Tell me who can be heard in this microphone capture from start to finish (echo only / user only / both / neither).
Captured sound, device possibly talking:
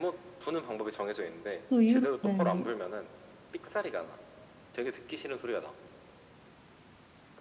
both